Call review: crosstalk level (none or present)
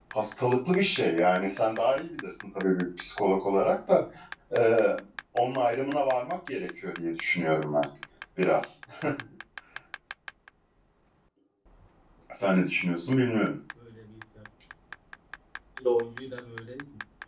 none